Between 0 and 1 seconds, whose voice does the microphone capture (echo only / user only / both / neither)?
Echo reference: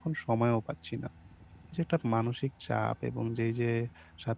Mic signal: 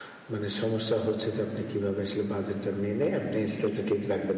user only